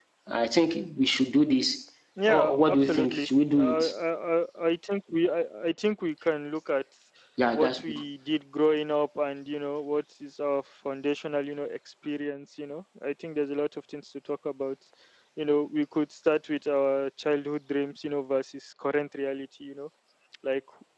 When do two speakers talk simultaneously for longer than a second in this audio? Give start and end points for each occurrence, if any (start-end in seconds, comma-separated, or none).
2.3-3.8